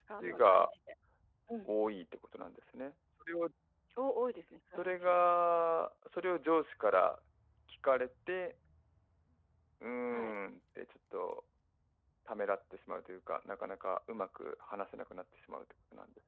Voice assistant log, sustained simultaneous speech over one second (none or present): none